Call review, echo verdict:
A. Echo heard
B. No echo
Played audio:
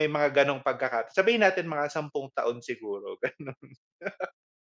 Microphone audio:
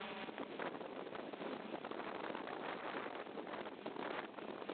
B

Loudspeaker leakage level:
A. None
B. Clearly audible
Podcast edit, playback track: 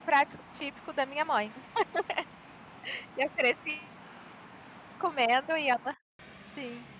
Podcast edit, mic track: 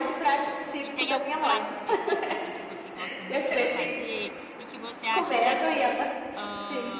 B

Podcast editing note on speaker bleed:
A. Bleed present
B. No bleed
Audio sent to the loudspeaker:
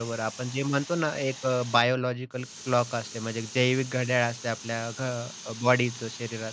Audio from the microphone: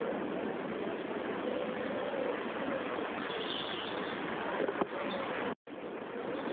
B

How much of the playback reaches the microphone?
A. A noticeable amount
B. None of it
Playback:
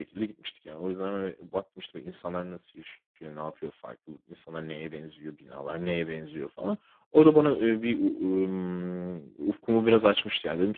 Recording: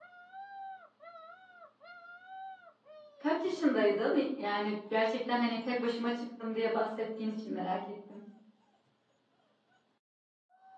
B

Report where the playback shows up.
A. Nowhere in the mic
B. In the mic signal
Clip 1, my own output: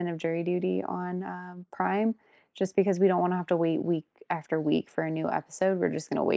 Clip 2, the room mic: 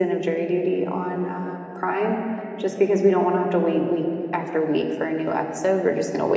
B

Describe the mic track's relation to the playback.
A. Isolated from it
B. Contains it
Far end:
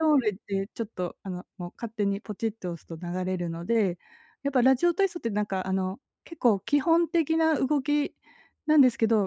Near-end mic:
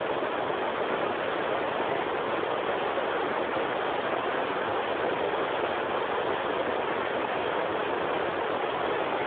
A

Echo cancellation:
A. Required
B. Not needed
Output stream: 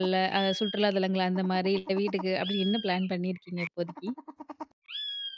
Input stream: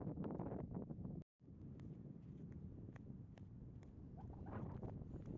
B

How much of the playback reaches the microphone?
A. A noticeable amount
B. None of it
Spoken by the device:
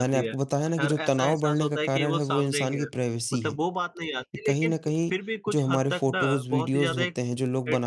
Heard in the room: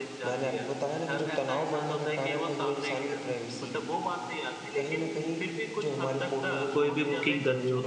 A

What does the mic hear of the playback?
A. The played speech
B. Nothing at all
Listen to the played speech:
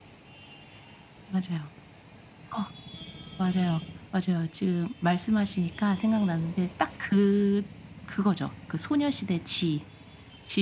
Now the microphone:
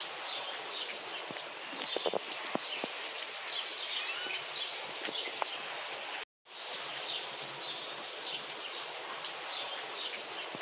B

